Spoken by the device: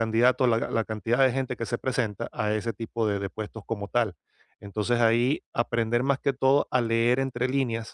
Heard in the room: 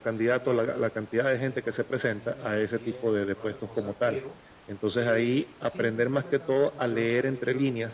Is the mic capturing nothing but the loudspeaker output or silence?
No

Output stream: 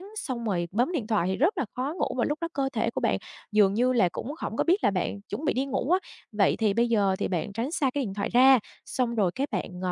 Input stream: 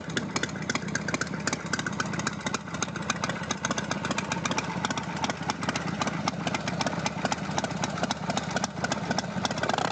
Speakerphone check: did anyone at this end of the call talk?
No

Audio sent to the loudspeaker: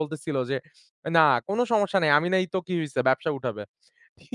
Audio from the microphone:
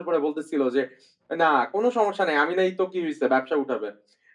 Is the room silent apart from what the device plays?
Yes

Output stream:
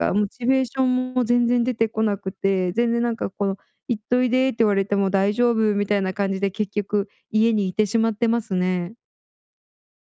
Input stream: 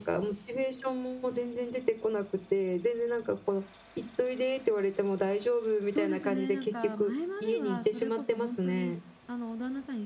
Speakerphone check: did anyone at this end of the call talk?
Yes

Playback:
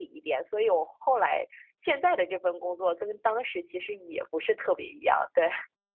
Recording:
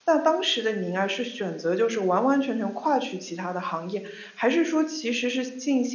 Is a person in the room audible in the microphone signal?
Yes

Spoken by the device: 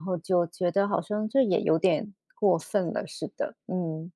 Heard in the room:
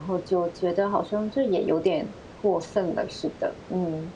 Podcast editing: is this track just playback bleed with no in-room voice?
Yes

